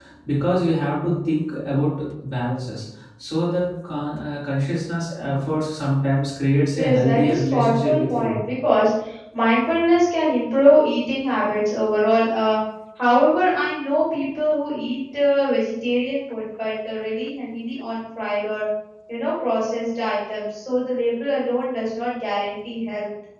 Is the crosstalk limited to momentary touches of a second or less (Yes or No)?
No